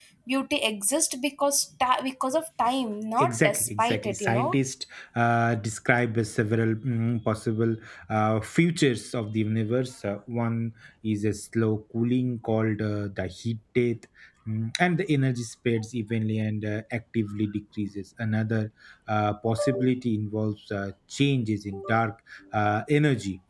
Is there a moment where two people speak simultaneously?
Yes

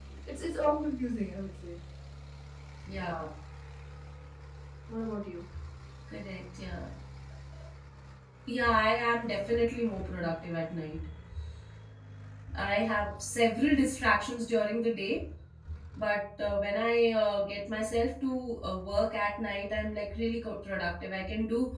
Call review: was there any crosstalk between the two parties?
No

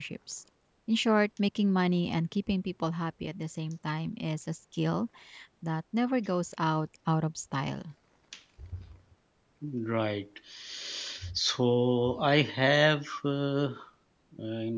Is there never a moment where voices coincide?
Yes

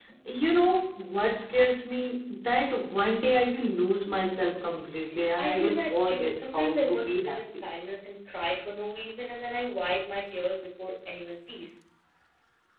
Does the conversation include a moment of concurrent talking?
Yes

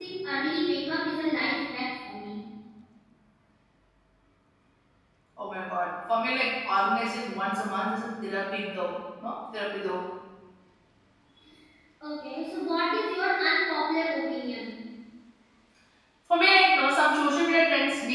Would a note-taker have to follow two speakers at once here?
No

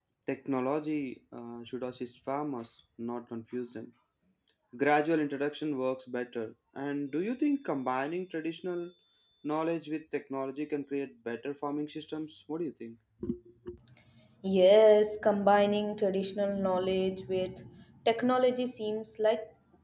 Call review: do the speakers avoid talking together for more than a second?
Yes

